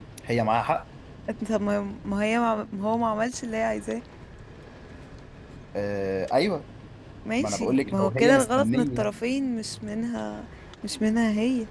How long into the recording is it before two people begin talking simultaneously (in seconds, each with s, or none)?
7.4 s